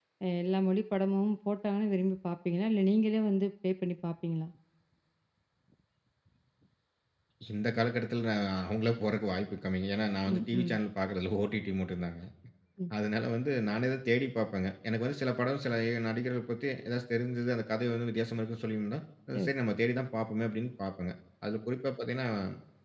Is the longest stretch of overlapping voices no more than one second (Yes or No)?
Yes